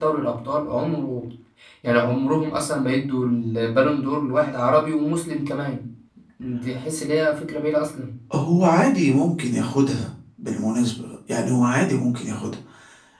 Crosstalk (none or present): none